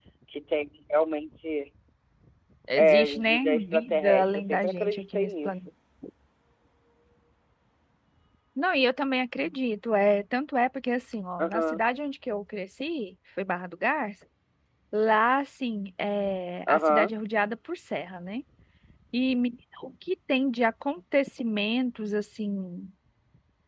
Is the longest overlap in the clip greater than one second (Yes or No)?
Yes